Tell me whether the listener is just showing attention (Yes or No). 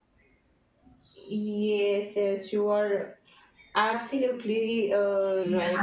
No